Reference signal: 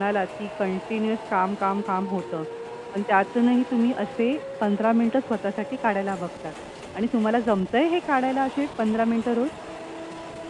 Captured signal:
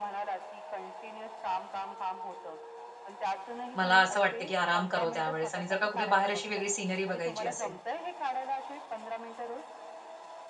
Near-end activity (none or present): present